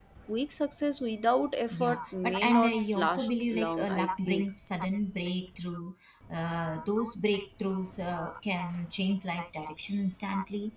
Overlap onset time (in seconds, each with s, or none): 1.7 s